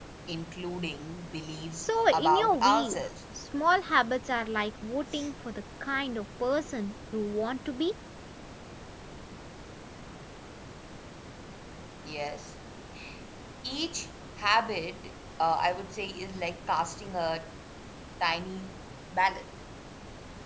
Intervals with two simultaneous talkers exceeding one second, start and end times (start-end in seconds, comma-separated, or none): 1.8-3.0